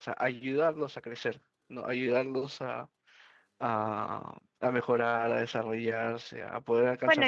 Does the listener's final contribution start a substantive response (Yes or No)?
Yes